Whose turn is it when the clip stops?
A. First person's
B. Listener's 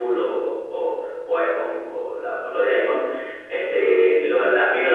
A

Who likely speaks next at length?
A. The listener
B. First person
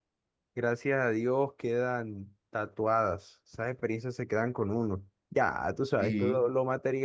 B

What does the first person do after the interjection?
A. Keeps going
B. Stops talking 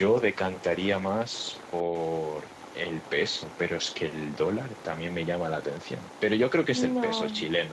B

